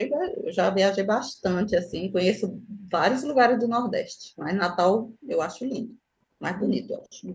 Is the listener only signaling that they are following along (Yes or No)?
No